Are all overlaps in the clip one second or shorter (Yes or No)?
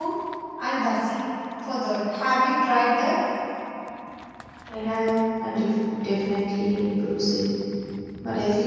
Yes